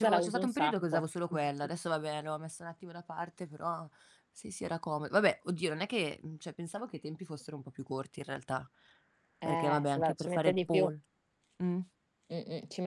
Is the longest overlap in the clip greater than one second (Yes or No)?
Yes